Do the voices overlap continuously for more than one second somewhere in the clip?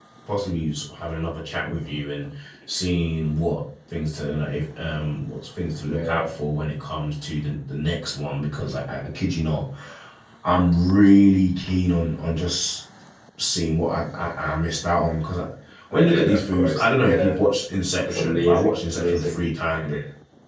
Yes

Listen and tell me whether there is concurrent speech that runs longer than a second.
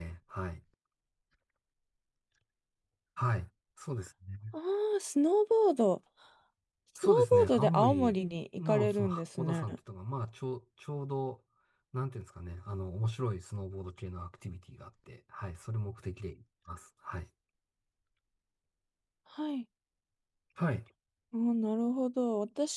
Yes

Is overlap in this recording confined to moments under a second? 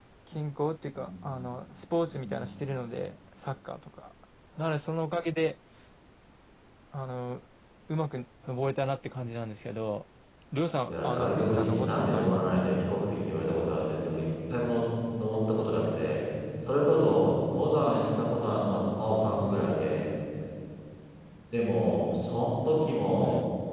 No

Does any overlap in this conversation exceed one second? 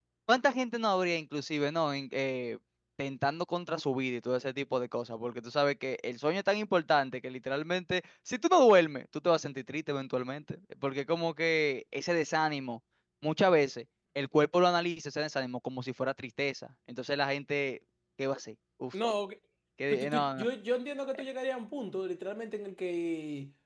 No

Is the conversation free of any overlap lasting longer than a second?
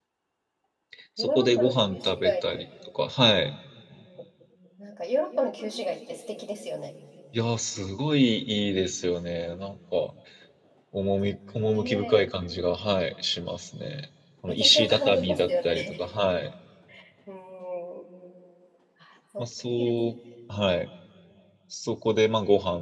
No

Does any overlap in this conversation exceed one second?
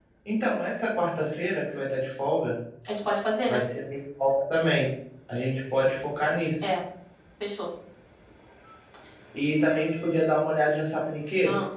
No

